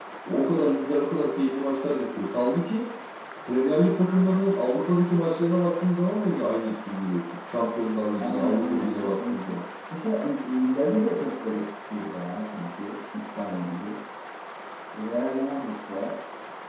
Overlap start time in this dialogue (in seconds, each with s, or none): 8.2 s